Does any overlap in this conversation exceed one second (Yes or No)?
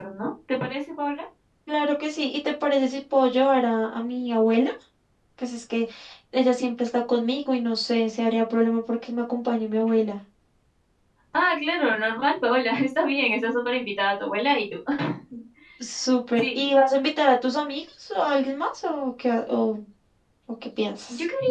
No